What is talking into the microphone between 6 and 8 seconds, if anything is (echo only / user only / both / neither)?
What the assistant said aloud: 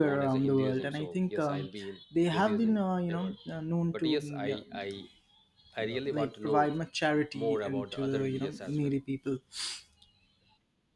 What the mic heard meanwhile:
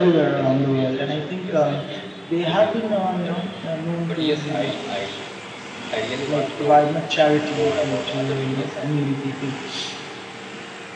echo only